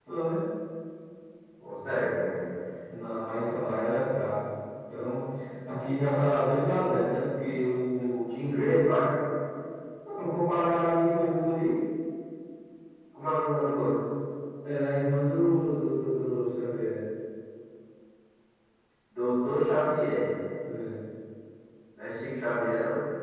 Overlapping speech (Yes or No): No